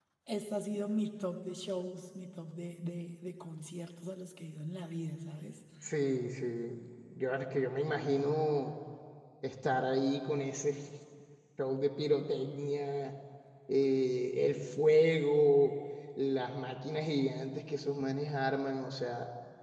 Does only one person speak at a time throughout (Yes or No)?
Yes